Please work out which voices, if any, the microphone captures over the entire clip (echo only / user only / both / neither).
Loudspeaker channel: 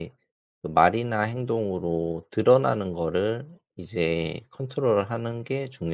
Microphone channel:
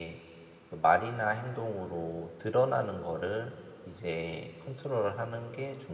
echo only